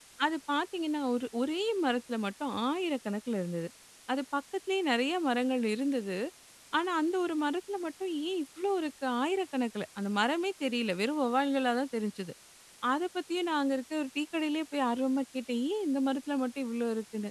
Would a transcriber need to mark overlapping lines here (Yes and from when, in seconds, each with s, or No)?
No